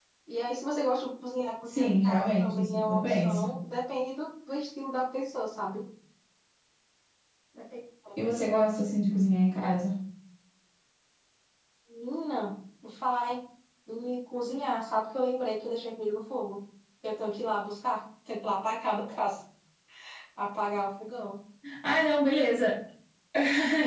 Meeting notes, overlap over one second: present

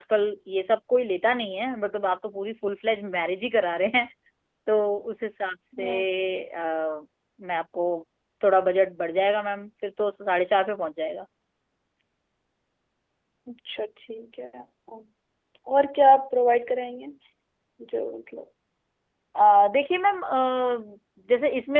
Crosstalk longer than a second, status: none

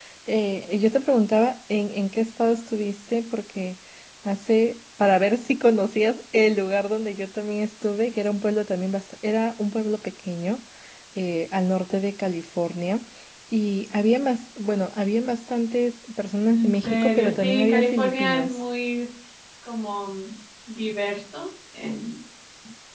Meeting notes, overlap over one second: present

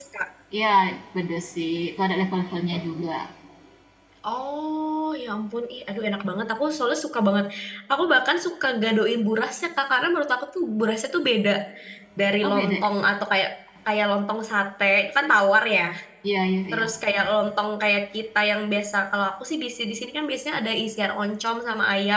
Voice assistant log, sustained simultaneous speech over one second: none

